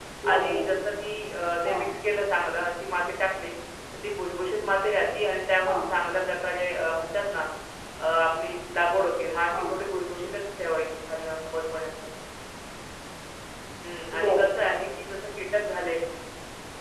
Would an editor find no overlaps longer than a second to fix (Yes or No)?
Yes